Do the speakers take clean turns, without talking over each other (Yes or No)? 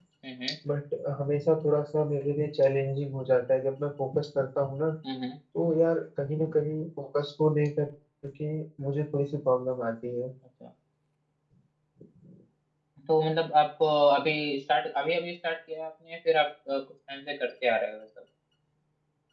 Yes